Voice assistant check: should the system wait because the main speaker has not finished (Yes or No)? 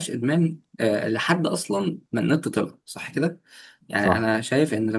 Yes